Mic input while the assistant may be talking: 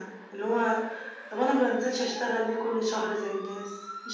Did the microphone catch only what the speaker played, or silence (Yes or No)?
Yes